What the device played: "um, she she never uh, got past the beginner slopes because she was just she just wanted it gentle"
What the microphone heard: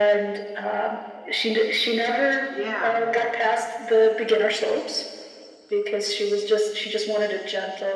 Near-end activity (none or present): present